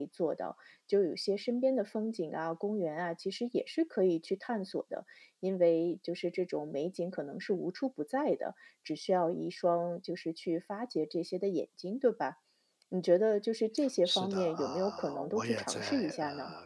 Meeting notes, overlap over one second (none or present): present